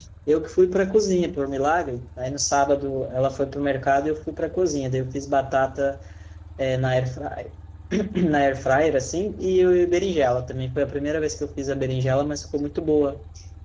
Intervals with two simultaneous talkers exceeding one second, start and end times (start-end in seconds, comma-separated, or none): none